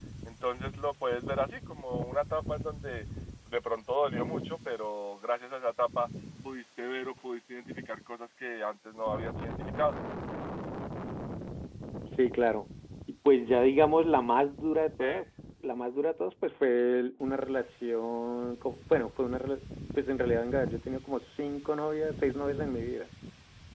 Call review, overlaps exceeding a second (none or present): none